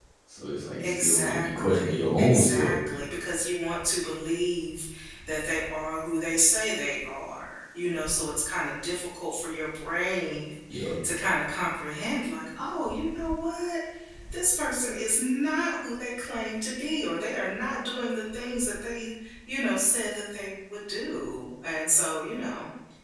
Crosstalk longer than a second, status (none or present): present